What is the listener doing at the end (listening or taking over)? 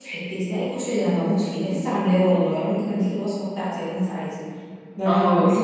taking over